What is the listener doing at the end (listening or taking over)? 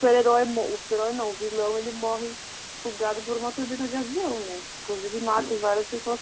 listening